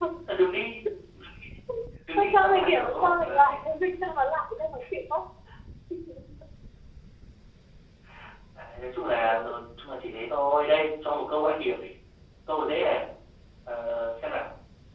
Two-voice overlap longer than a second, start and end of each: 2.2-3.5

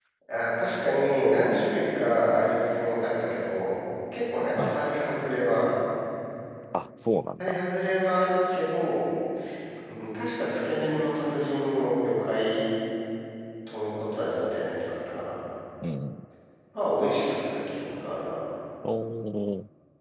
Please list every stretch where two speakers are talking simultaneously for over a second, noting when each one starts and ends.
none

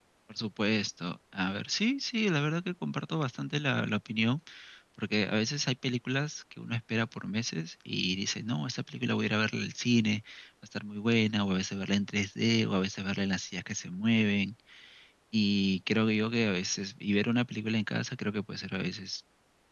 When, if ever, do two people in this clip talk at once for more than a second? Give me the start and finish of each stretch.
none

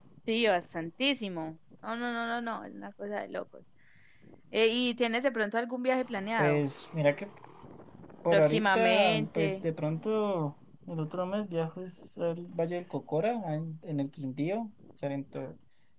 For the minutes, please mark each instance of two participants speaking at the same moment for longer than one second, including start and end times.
8.3-9.6

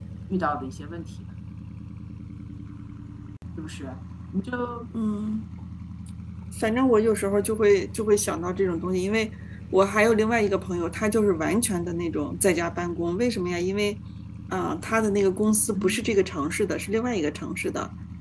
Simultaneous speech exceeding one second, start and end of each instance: none

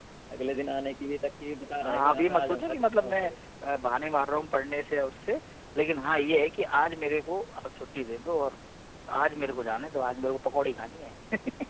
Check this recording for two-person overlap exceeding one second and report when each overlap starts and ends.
1.8-3.3

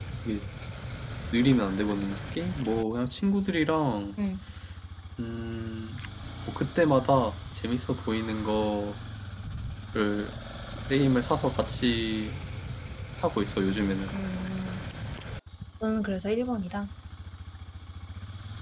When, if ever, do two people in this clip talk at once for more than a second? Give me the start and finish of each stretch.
none

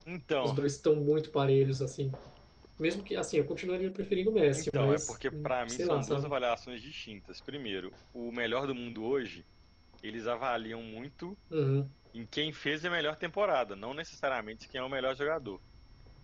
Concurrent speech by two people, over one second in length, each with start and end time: 4.5-6.3

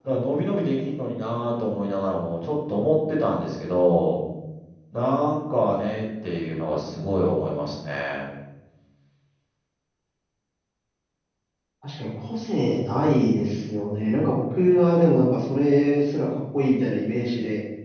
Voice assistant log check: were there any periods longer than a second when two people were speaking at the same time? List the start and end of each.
none

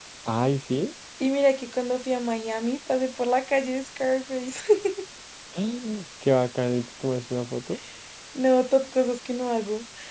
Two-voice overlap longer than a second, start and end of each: none

